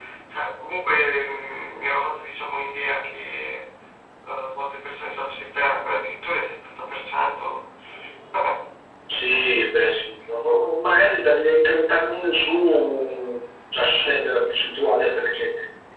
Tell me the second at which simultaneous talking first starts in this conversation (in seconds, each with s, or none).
none